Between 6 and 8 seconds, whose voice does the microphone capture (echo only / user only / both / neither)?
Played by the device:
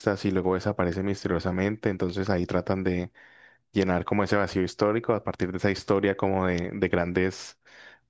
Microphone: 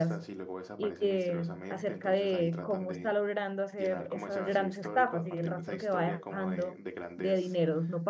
both